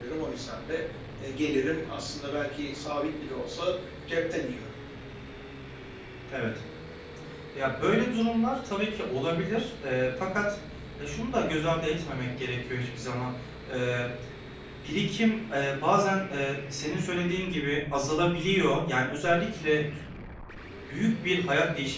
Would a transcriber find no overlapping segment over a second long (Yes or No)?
Yes